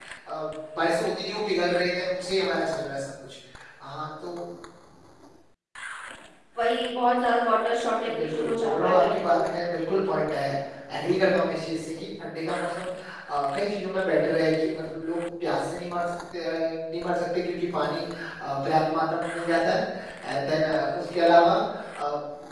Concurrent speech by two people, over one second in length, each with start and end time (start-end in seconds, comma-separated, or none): 8.1-9.5